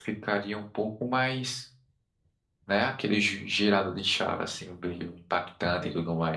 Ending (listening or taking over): taking over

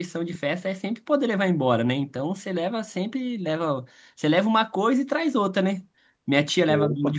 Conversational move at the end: listening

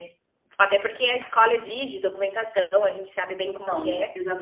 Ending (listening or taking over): taking over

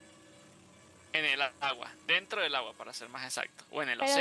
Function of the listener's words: taking over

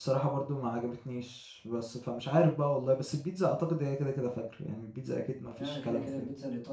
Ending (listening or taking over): taking over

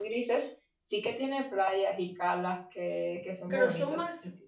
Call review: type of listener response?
taking over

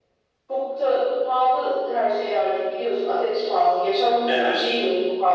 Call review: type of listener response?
listening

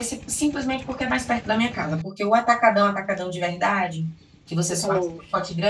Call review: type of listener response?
listening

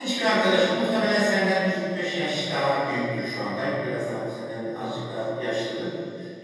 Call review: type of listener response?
listening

